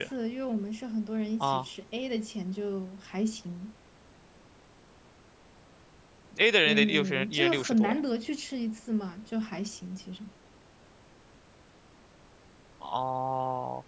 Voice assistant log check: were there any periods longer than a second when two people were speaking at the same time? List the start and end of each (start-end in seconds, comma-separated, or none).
6.7-8.0